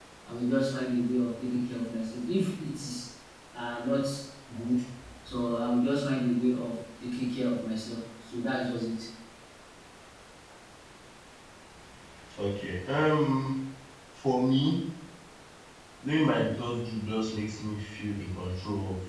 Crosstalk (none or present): none